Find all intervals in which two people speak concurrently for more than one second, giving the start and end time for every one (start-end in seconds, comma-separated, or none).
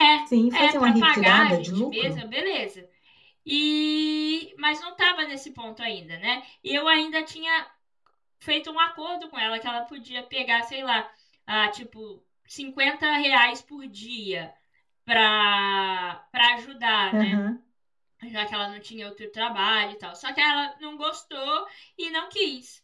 0.5-2.2